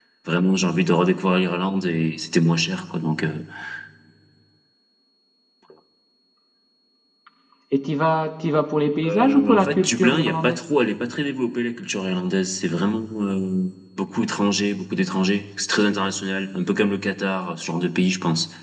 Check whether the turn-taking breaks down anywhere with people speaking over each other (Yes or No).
Yes